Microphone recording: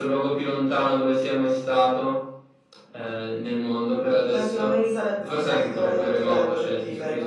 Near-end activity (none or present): none